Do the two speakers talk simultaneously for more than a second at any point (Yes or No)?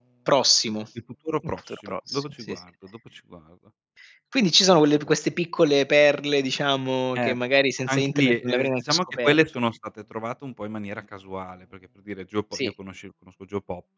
Yes